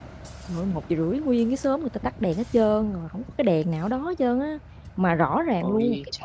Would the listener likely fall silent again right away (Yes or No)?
Yes